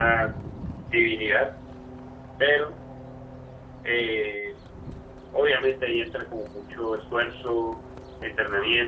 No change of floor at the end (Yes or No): Yes